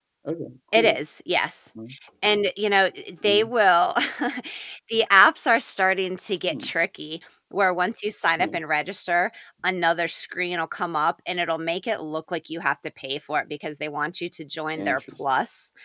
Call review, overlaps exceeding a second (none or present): none